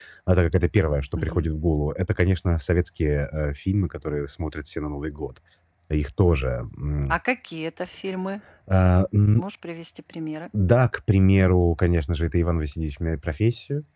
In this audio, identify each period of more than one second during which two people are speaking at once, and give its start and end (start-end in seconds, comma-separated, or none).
none